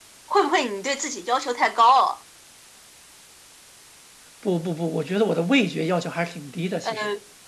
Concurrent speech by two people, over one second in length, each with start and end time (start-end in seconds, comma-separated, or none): none